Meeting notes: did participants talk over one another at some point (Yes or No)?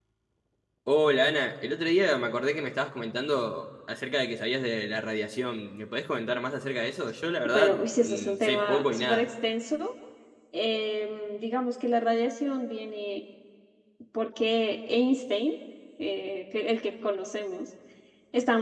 Yes